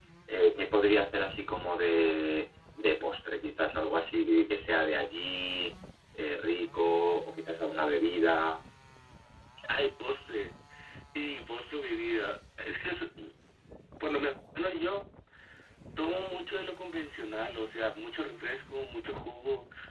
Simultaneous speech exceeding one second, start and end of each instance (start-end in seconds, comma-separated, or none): none